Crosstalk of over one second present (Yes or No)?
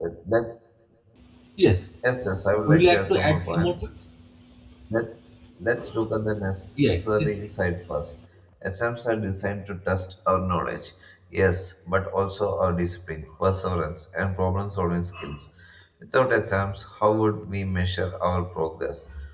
Yes